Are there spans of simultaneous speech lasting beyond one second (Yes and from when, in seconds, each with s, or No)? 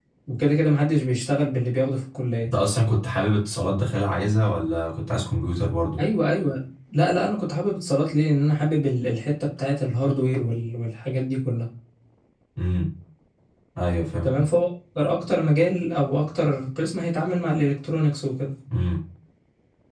No